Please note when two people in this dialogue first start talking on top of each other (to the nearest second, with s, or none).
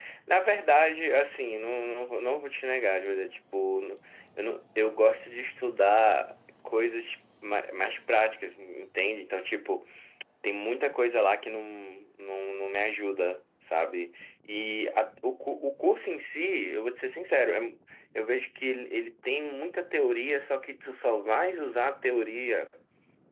none